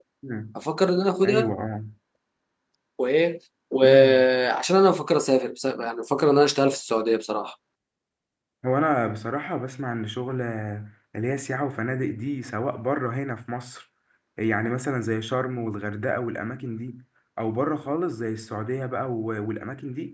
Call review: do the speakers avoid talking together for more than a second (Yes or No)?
Yes